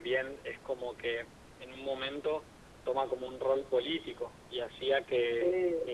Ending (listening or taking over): listening